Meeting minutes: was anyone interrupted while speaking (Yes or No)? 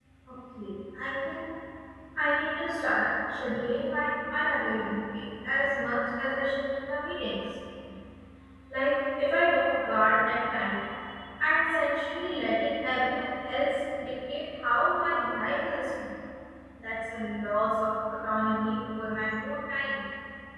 No